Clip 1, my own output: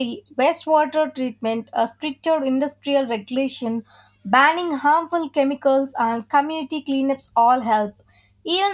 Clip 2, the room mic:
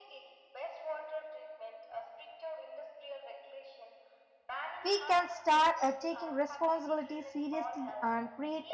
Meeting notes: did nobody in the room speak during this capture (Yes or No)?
No